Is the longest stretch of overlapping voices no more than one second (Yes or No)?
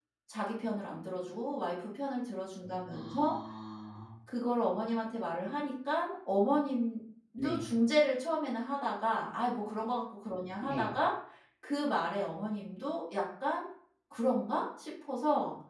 Yes